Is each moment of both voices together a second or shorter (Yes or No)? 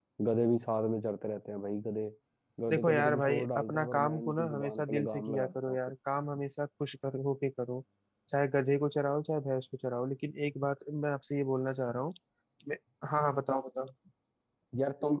No